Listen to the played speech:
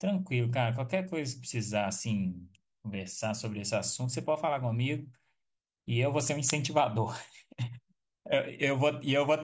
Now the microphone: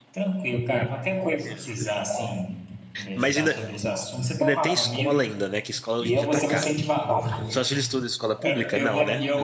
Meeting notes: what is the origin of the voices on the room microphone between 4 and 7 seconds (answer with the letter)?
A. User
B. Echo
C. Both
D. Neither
C